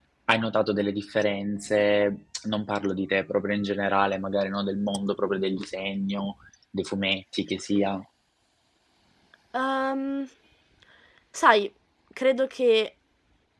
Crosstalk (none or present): none